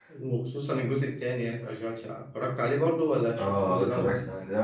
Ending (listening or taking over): taking over